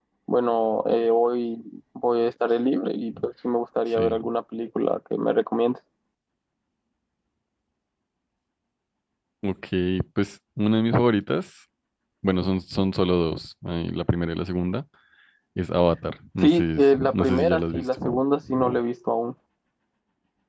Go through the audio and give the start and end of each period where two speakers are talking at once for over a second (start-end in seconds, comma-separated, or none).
16.4-18.2